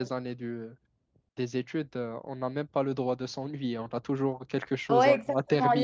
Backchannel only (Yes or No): No